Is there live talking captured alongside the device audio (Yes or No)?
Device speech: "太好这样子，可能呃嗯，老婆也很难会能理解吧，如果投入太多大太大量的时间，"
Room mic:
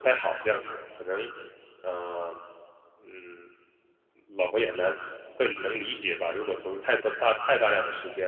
No